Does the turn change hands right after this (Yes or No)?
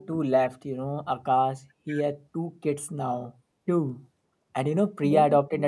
No